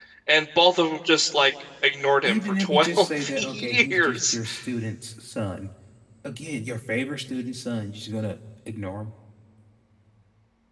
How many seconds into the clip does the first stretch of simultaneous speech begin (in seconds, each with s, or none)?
2.2 s